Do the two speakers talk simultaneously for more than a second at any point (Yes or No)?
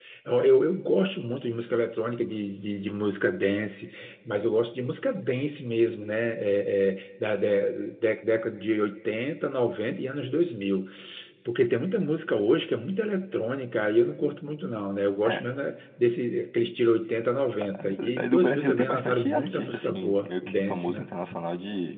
Yes